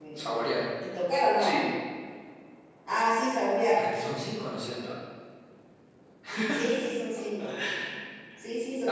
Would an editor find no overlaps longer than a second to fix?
Yes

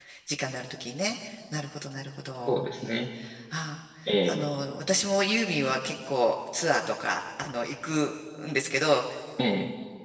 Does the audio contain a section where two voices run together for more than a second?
No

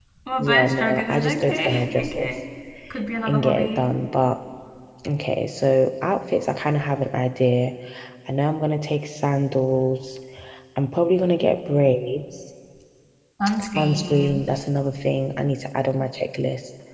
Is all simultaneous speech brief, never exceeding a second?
No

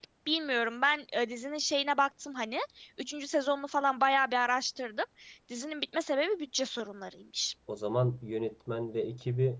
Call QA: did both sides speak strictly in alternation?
Yes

